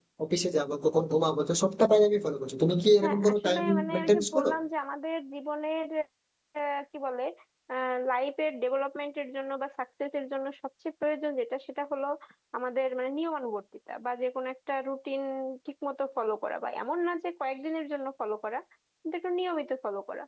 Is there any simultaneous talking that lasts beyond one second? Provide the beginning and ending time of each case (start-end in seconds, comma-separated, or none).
3.0-4.5